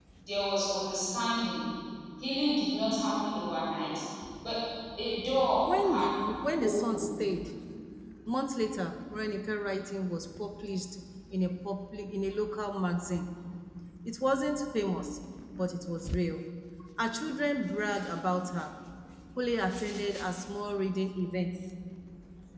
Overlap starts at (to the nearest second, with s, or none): 6 s